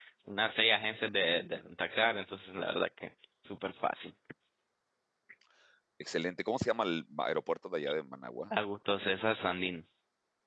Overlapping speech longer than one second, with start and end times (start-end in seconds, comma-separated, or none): none